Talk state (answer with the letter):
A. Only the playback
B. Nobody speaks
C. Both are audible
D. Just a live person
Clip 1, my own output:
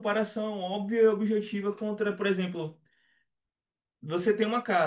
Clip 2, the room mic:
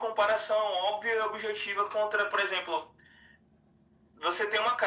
A